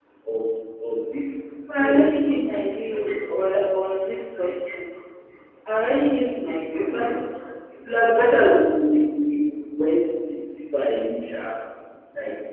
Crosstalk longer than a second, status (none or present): none